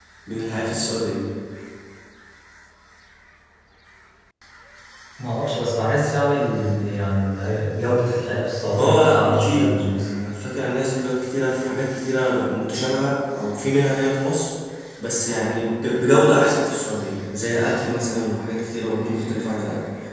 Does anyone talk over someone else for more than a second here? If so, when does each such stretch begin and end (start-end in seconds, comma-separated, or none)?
8.8-10.1